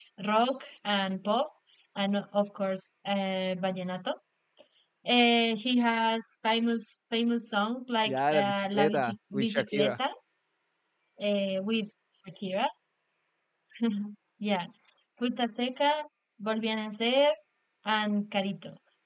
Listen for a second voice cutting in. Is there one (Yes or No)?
Yes